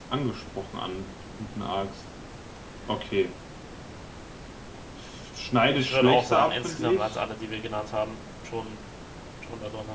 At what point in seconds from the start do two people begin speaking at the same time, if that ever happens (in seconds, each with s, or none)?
5.7 s